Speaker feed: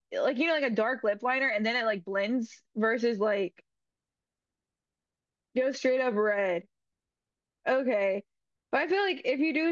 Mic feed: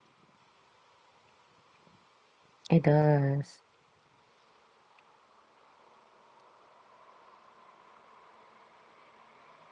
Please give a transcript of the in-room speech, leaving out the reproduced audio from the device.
It does.

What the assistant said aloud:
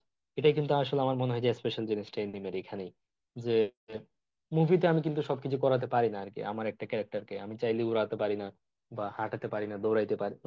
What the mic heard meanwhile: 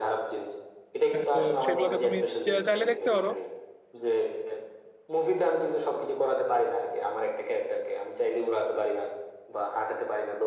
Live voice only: আহ, তো সেগুলোতে তুমি চা- চাইলে দেখতে পারো

